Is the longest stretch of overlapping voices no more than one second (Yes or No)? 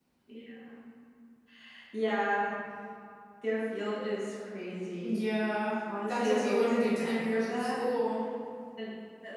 No